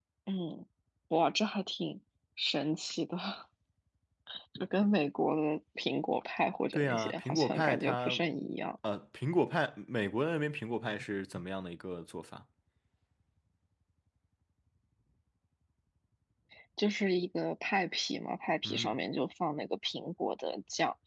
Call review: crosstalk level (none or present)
present